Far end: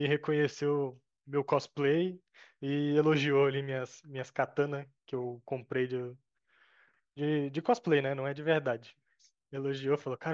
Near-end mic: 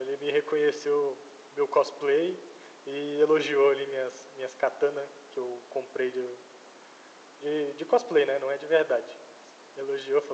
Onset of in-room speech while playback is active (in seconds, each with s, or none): none